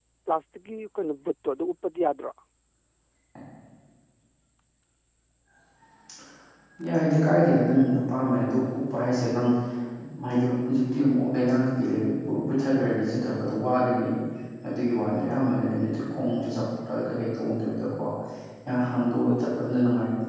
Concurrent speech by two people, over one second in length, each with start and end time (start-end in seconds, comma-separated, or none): none